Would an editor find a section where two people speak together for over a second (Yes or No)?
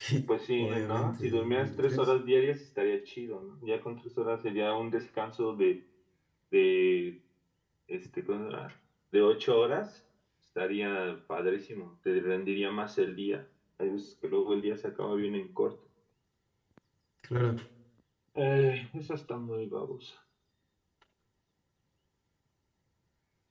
Yes